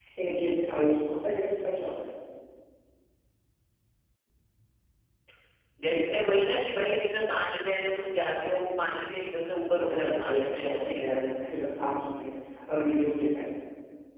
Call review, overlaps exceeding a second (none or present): present